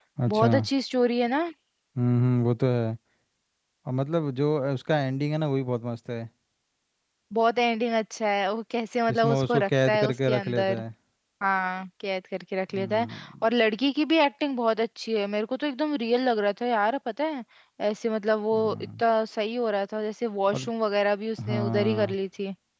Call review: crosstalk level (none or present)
present